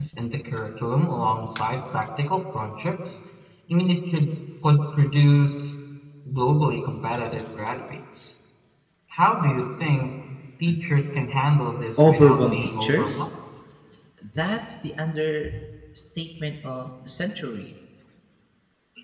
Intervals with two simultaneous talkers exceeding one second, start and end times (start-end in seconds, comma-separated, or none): 12.0-13.2